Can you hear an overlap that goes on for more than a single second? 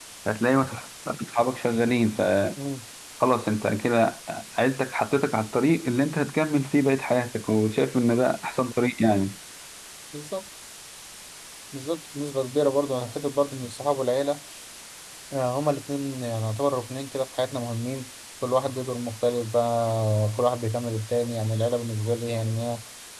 No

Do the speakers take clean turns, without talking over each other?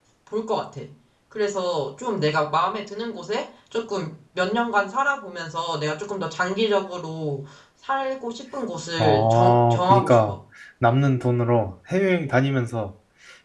No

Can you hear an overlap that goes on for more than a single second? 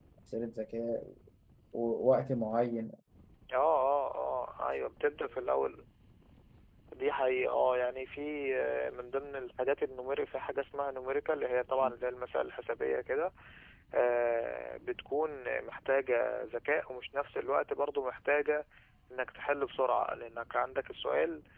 No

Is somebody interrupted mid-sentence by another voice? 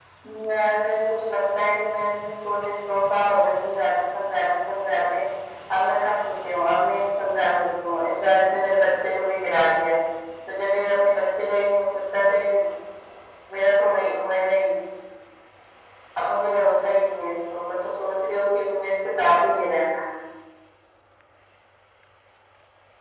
No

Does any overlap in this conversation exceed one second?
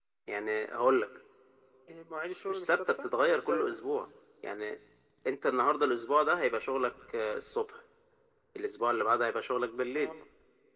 Yes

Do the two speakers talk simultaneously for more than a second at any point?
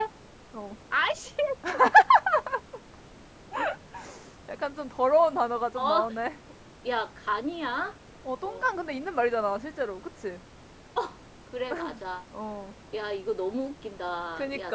No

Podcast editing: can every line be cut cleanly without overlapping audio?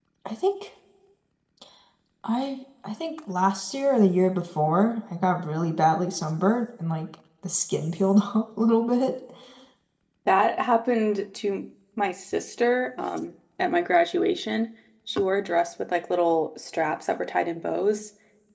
Yes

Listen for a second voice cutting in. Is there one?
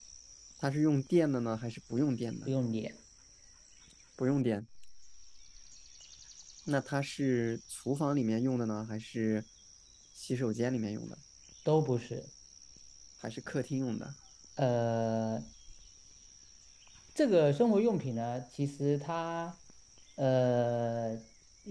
No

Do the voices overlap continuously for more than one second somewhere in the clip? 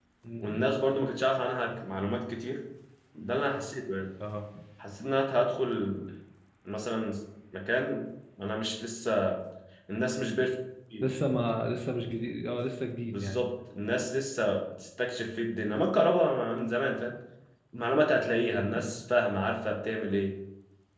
No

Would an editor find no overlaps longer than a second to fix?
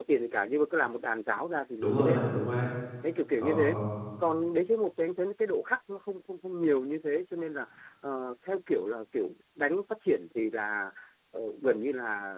Yes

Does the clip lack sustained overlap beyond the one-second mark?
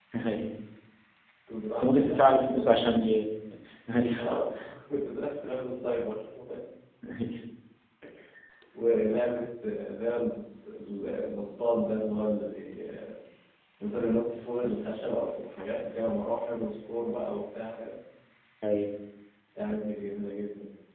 No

